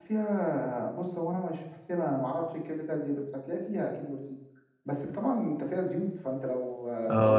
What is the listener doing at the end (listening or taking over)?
taking over